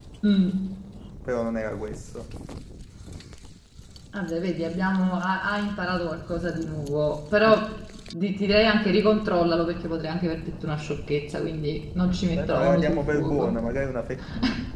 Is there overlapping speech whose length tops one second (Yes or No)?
Yes